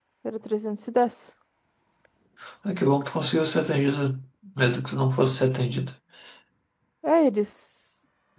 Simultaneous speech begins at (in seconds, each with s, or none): none